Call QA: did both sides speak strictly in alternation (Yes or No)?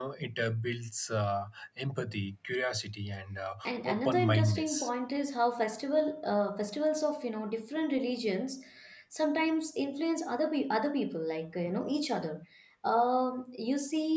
No